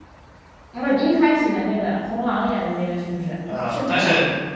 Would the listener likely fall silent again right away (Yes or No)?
No